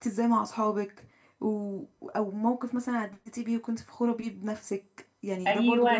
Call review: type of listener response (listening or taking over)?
taking over